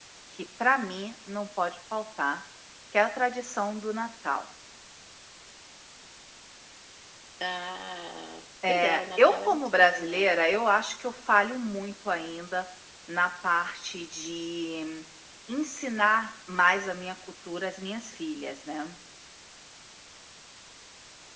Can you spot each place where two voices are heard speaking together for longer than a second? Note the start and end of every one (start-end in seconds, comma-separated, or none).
8.7-10.3